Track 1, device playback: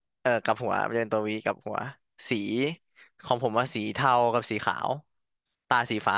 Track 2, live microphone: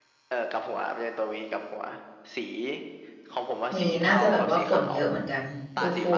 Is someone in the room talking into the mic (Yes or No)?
Yes